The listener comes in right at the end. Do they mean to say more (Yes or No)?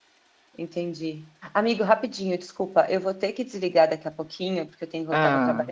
No